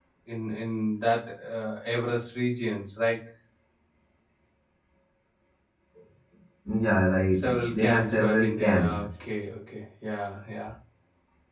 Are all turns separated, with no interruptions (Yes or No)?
No